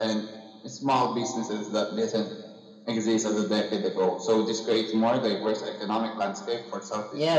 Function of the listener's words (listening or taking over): taking over